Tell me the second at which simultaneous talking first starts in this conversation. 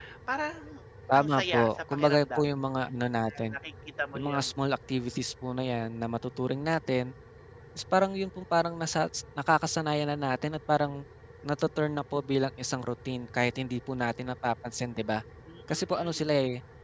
1.1 s

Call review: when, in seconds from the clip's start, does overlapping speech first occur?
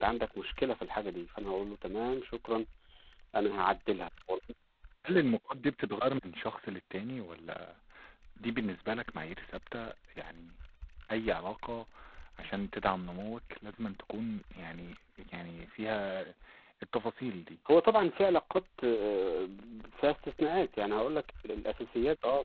none

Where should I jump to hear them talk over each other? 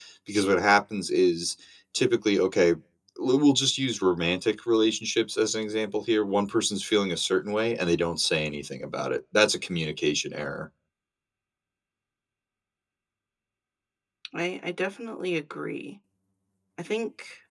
none

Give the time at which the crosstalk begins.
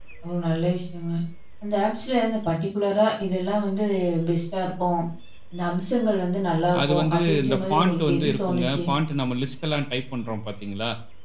6.7 s

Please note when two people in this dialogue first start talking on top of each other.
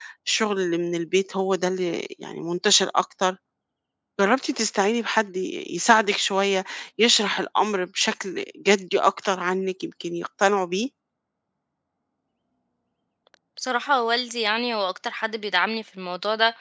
none

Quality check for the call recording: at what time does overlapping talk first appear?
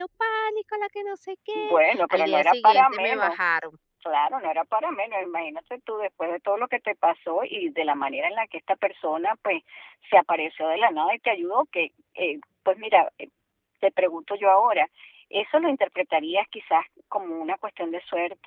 1.6 s

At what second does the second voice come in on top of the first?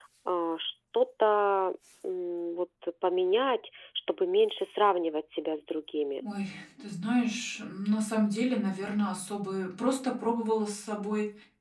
none

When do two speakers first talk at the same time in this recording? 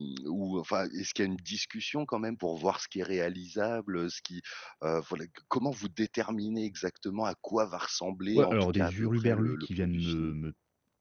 8.3 s

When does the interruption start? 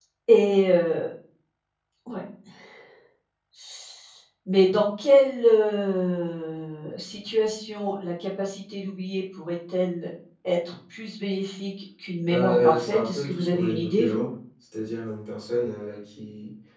12.3 s

